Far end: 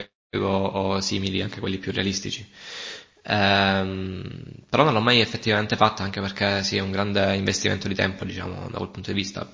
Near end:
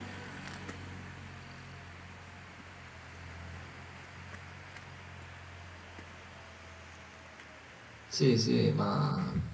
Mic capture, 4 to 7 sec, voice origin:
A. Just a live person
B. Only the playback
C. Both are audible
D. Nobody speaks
D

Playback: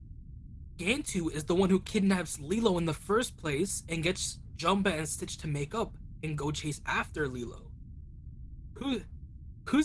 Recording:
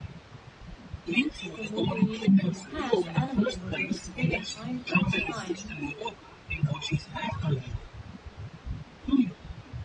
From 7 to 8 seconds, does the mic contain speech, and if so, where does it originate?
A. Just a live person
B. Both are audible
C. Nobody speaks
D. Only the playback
D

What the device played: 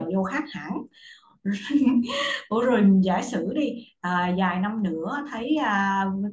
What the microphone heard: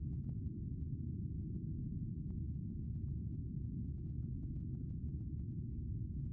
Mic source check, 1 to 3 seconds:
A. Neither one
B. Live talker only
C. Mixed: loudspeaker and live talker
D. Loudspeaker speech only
A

